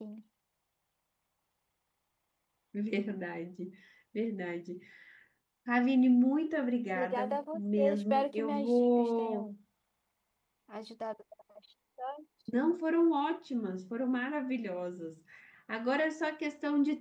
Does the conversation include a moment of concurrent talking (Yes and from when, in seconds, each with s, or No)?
Yes, from 6.9 s